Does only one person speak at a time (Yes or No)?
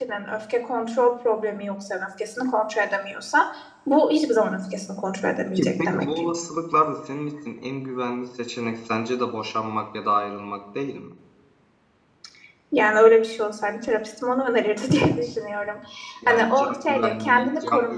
No